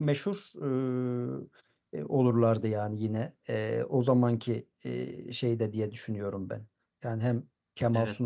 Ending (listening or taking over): listening